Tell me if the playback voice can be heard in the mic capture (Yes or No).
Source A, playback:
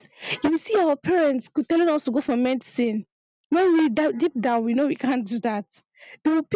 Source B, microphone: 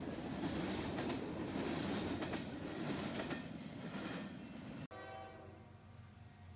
No